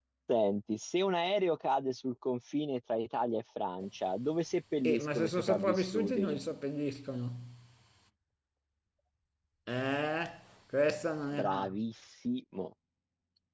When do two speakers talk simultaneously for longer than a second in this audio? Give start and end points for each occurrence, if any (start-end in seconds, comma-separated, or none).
4.8-6.4